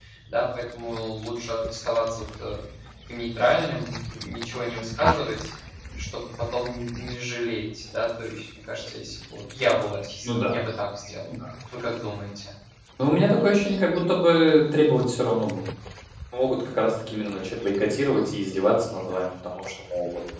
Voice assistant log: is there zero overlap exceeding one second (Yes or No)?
Yes